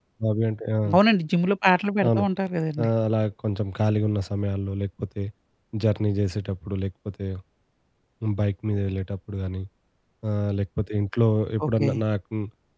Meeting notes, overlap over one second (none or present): none